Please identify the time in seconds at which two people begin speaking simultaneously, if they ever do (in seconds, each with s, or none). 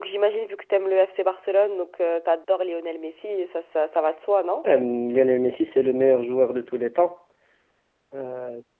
none